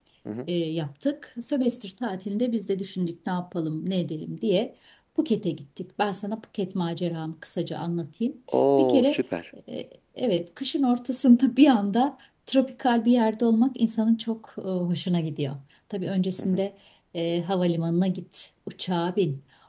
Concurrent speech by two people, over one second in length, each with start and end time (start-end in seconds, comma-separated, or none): none